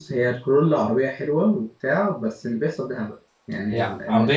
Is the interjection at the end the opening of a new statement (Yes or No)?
Yes